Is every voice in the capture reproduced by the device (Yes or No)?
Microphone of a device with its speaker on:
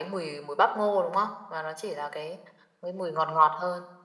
Yes